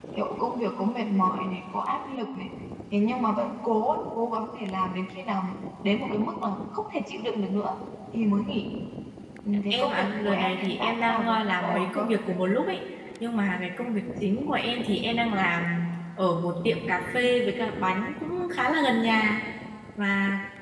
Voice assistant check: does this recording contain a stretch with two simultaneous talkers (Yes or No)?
Yes